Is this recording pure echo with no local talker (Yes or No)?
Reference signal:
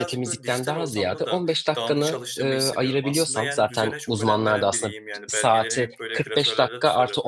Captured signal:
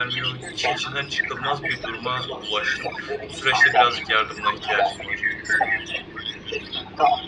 No